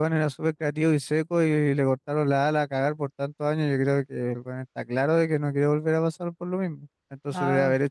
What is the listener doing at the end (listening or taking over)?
listening